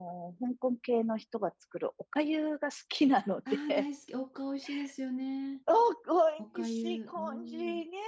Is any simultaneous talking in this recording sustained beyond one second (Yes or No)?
Yes